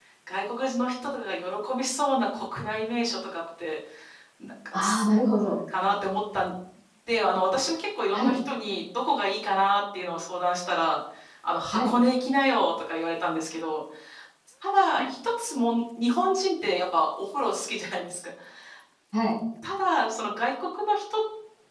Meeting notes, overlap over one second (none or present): none